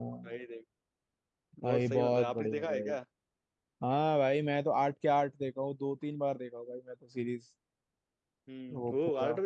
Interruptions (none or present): present